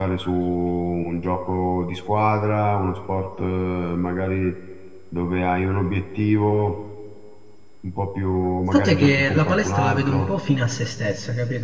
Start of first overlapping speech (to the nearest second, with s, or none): 9 s